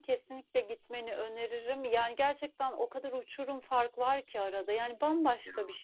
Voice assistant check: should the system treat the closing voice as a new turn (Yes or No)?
No